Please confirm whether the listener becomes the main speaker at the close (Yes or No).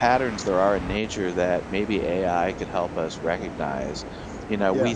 No